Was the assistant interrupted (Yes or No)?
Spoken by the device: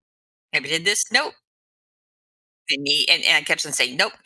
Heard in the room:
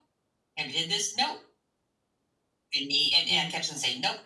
Yes